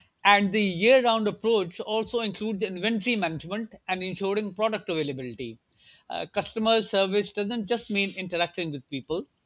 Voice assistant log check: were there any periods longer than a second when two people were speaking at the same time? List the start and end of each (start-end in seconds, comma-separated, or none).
none